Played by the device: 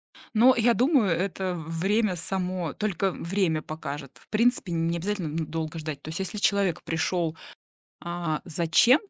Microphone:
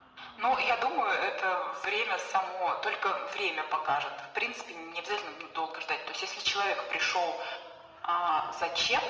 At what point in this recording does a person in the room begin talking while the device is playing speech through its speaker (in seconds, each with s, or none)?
none